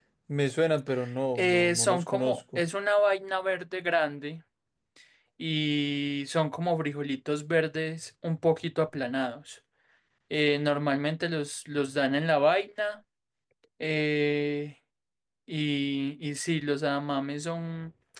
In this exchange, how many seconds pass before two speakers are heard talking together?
1.4 s

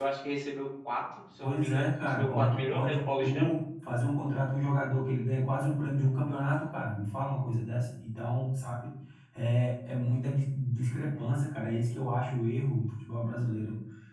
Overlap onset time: 1.4 s

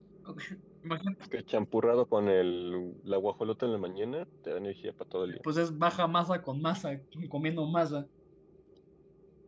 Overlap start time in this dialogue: none

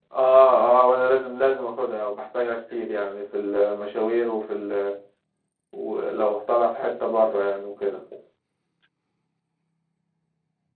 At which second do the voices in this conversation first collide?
none

